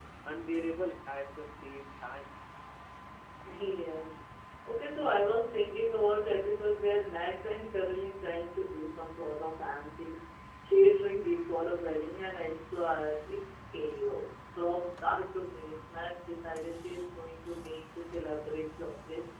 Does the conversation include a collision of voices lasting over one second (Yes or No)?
No